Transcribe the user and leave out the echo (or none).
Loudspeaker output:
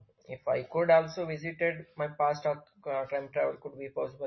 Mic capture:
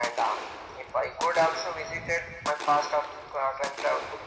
none